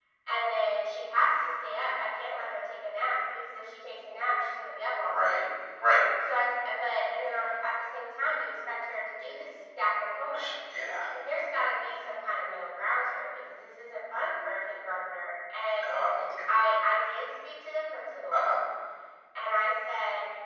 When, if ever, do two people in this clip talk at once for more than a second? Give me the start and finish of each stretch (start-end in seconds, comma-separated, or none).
none